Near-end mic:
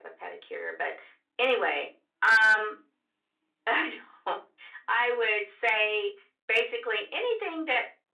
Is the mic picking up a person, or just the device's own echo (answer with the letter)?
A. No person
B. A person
A